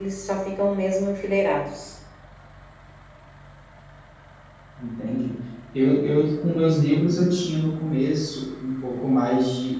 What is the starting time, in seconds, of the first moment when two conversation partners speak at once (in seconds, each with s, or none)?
none